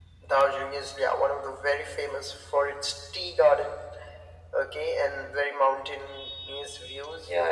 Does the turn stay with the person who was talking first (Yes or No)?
No